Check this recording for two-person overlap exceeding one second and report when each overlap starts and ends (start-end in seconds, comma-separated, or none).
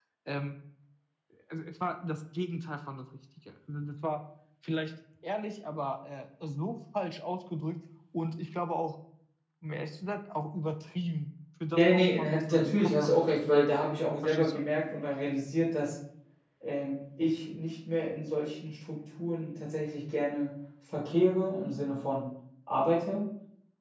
11.8-13.1